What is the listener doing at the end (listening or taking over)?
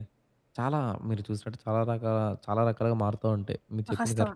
taking over